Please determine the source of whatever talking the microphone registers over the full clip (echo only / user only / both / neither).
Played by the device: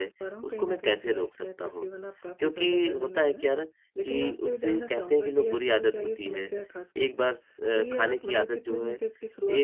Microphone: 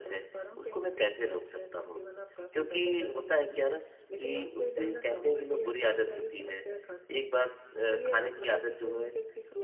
echo only